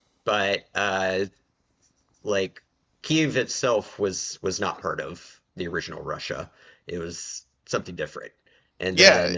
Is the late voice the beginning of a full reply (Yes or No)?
Yes